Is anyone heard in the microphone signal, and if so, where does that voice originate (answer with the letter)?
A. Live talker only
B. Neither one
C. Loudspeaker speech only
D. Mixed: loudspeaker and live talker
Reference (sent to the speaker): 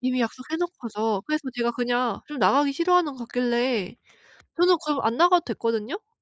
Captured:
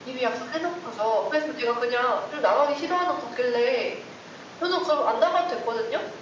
C